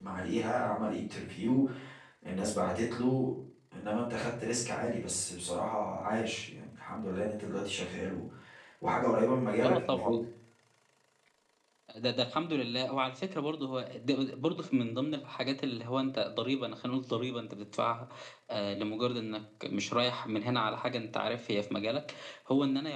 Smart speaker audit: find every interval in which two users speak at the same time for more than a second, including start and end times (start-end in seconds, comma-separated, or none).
none